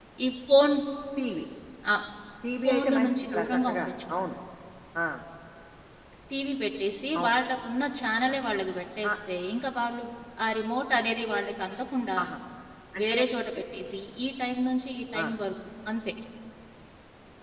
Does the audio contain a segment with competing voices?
Yes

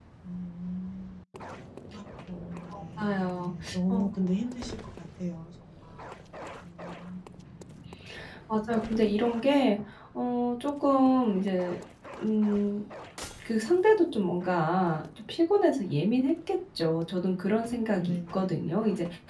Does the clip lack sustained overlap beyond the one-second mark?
No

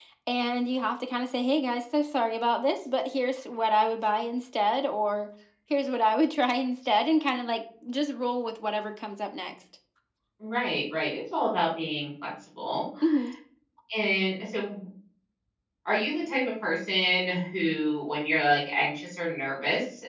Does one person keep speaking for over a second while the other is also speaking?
No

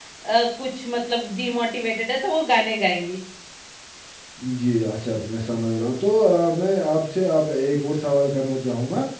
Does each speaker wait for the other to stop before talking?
Yes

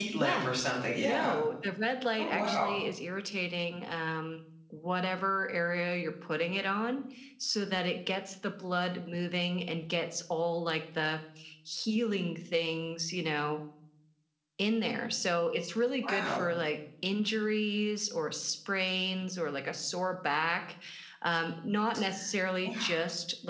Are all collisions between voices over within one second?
Yes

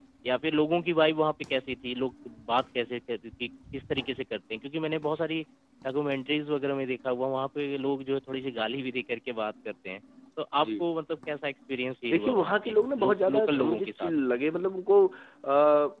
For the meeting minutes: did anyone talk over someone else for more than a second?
Yes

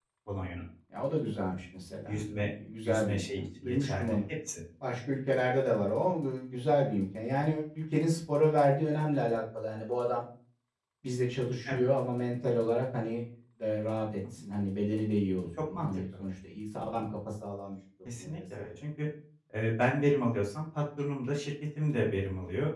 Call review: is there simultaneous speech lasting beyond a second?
Yes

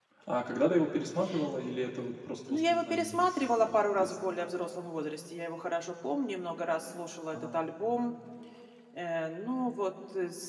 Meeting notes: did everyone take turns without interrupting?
No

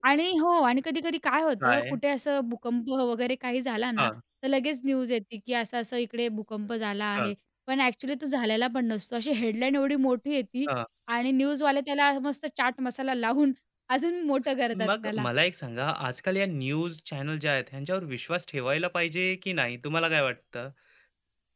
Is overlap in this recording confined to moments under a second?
Yes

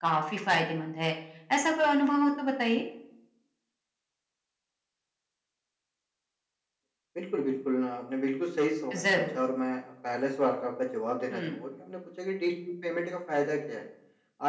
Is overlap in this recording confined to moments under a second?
Yes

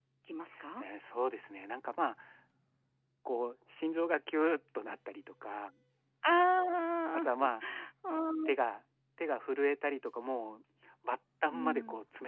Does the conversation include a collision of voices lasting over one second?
No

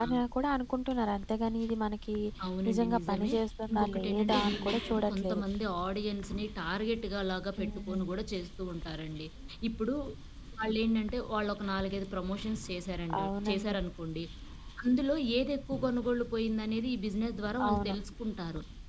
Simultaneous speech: Yes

